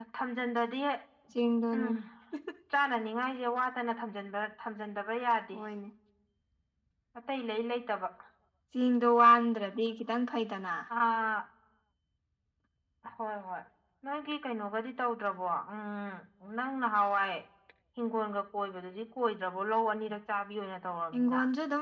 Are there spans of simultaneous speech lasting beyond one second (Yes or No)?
No